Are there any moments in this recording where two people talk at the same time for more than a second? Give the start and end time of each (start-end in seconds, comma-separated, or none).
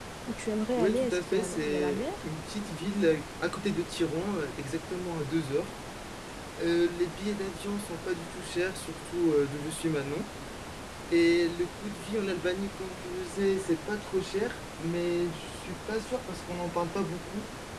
0.8-2.1